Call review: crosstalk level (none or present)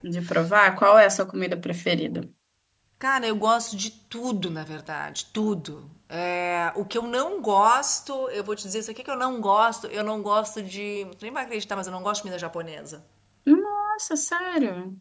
none